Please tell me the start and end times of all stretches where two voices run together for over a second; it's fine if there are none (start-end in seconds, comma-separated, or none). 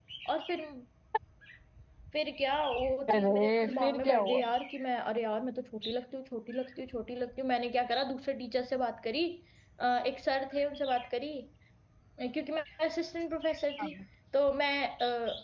3.1-4.4